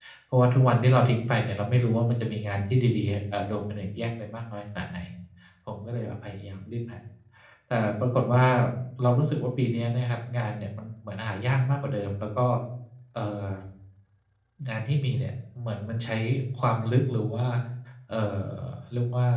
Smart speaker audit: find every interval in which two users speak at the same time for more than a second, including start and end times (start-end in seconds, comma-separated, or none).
none